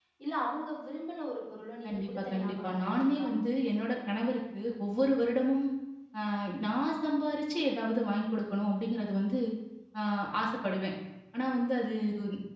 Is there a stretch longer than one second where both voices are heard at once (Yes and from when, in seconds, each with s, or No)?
Yes, from 1.8 s